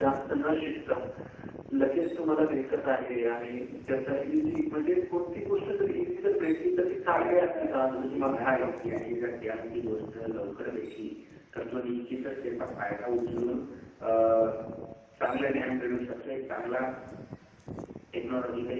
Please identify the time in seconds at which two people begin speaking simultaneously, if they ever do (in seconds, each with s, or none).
7.1 s